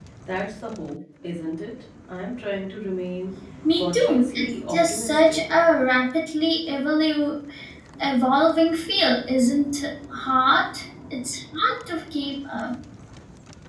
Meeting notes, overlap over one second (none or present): present